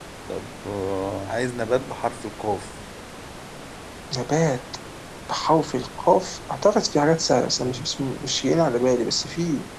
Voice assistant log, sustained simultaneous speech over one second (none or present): none